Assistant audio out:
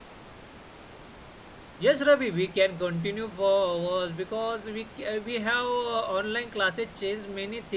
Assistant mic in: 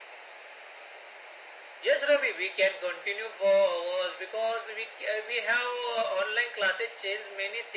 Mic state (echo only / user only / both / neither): echo only